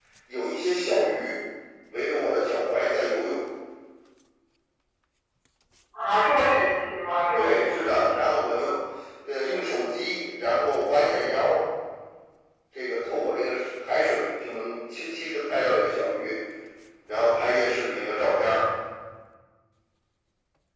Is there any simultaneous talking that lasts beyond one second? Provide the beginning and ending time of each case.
7.3-8.7

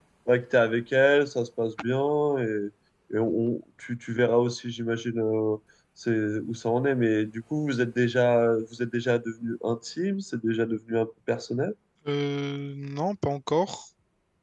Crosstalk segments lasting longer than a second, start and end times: none

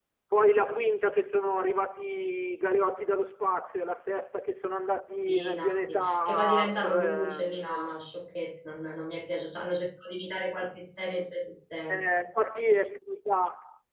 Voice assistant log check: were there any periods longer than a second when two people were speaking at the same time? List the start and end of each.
5.3-8.0

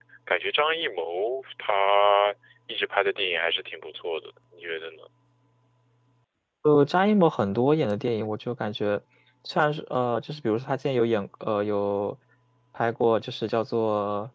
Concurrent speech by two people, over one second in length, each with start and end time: none

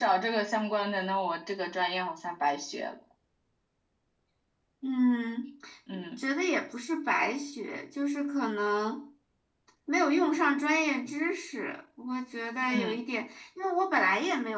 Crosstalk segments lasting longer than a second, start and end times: none

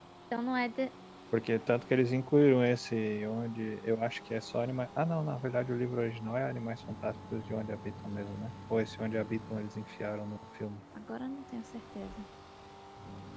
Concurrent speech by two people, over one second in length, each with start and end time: none

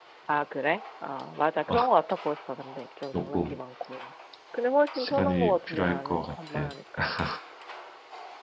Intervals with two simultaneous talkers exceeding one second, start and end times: 4.9-6.7

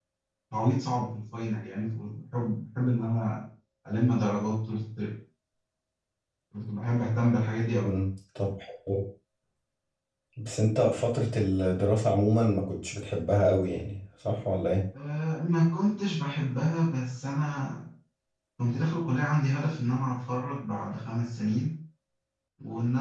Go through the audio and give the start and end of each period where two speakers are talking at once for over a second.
none

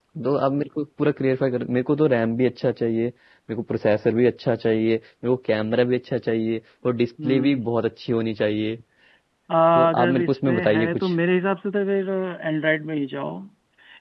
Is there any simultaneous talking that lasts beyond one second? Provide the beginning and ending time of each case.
9.8-11.1

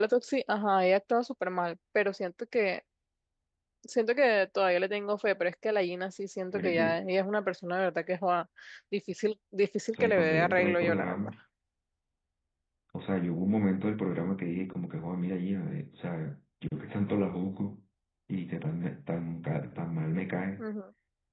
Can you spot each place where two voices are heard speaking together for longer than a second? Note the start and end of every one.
9.9-11.3

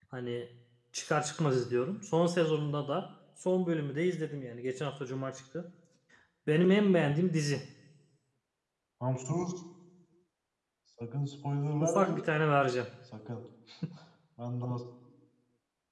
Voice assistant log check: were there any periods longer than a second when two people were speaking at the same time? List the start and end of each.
none

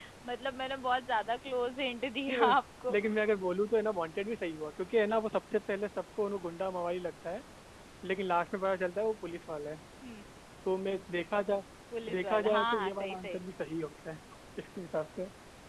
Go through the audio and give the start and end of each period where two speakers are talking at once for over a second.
12.1-13.4

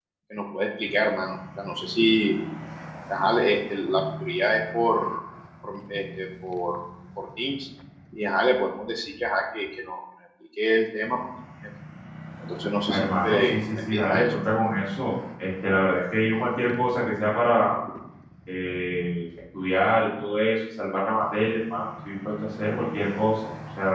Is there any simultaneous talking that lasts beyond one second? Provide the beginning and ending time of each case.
12.9-14.3

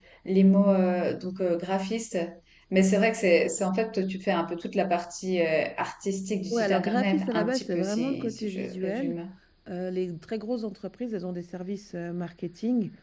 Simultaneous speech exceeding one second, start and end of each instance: 6.5-9.2

